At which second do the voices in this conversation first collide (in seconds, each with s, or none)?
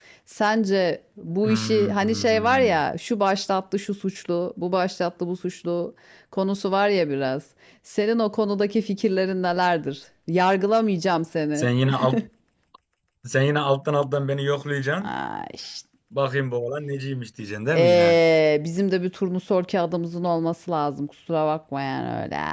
1.4 s